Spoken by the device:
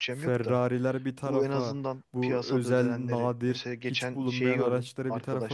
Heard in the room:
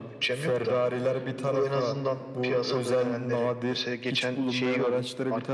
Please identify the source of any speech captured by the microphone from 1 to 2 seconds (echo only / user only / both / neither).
echo only